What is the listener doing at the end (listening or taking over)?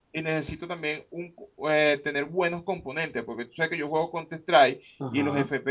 listening